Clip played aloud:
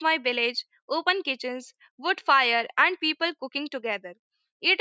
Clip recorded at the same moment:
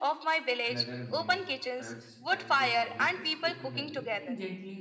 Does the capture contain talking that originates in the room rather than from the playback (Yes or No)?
Yes